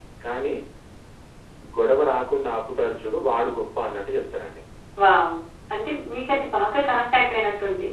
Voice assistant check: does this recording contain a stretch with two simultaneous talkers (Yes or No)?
No